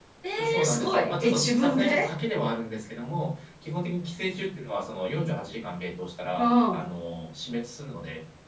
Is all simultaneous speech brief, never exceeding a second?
No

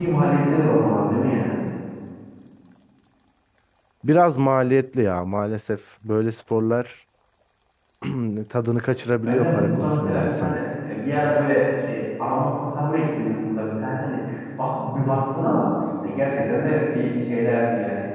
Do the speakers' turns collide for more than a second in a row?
Yes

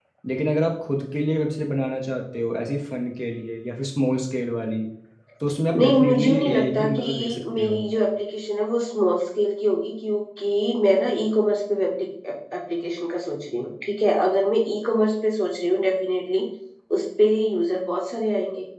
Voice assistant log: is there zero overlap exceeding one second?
No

